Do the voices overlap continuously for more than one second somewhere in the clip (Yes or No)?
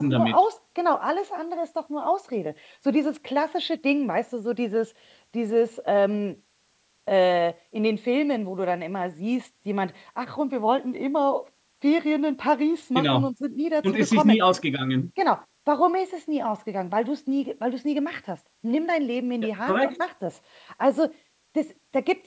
No